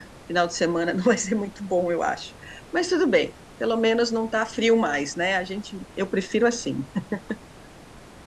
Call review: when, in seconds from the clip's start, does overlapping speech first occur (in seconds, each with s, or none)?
none